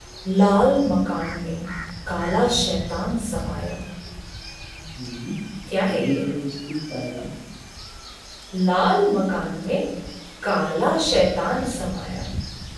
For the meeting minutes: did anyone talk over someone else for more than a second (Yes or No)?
No